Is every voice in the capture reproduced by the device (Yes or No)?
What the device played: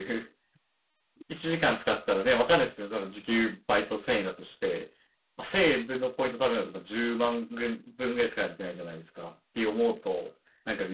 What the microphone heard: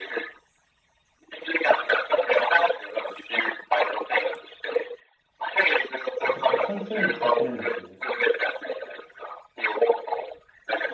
No